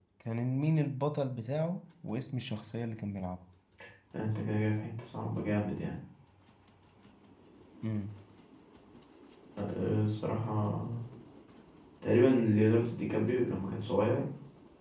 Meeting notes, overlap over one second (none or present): none